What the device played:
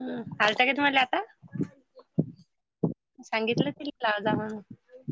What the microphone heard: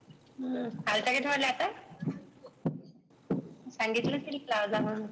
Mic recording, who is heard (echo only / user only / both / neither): echo only